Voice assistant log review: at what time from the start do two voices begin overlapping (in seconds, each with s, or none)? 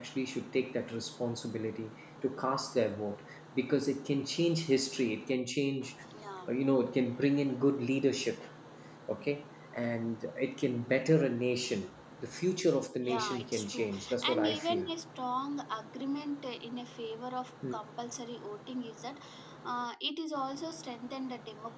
13.0 s